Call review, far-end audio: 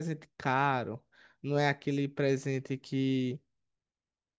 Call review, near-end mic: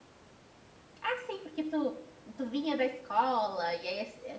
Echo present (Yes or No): No